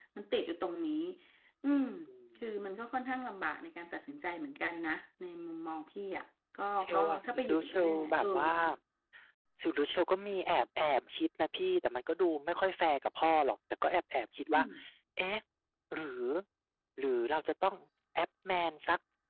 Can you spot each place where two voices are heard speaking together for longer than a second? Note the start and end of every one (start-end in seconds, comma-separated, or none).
6.8-8.3